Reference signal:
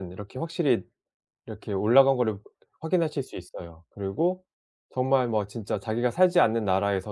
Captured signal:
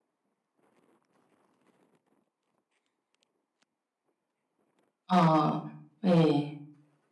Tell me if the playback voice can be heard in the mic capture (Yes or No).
No